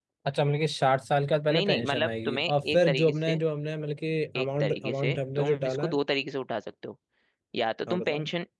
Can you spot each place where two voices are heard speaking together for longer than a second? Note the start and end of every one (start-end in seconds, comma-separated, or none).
1.5-3.4, 4.4-6.0